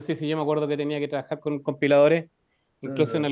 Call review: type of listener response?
listening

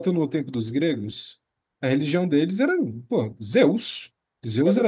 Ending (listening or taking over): listening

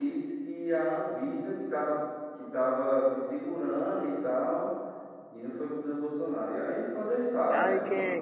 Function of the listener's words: taking over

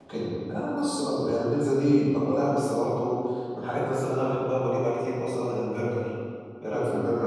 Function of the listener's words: taking over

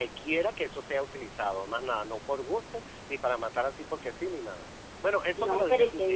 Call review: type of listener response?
taking over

